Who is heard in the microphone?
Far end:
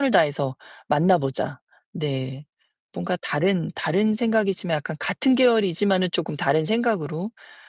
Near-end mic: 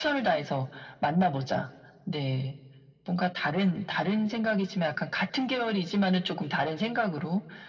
echo only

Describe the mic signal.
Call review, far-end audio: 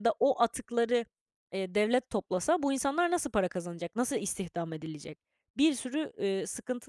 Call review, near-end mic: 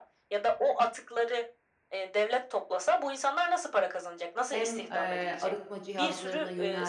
both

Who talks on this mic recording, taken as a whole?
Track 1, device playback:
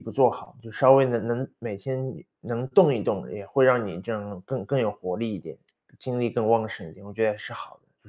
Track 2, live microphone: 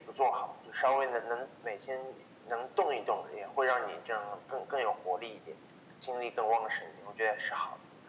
echo only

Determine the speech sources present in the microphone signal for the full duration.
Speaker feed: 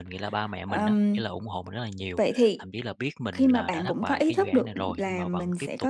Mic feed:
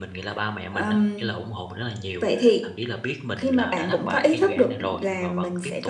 echo only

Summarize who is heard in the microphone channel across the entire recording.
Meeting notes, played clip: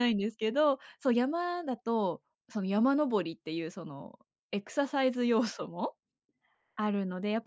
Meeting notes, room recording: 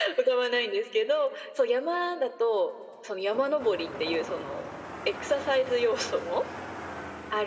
echo only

